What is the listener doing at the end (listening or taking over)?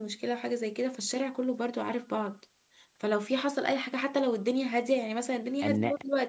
listening